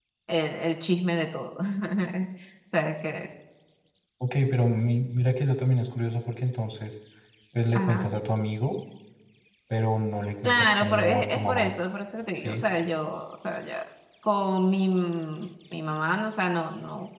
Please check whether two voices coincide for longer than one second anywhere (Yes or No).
Yes